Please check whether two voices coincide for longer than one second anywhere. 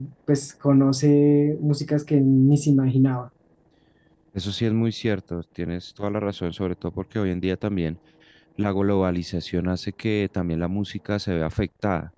No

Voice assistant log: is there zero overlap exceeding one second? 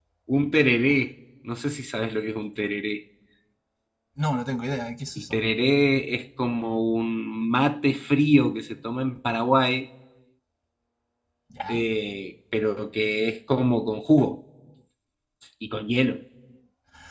Yes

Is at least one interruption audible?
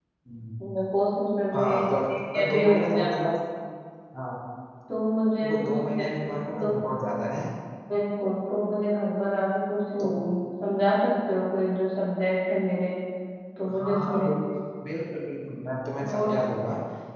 Yes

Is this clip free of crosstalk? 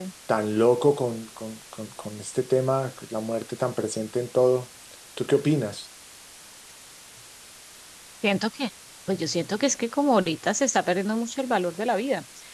Yes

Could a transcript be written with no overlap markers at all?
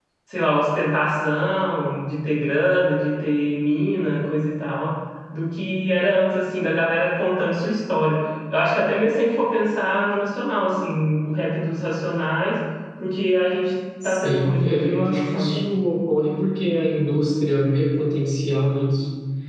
No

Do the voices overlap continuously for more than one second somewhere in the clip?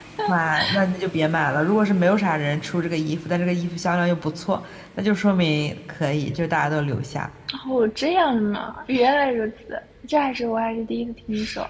No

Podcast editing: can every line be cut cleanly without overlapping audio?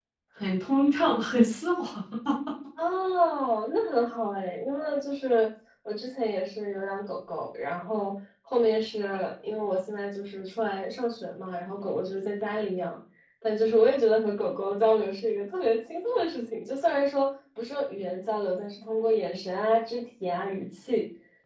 Yes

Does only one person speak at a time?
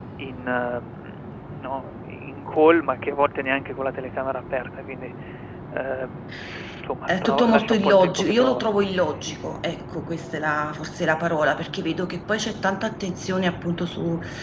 No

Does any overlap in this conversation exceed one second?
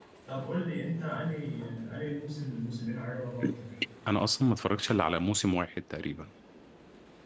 No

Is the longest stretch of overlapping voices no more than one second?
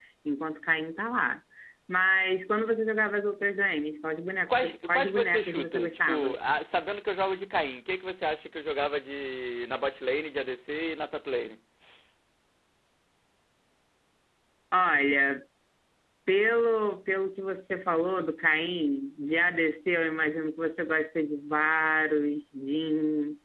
No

